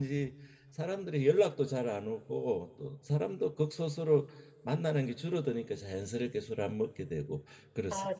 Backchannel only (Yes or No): No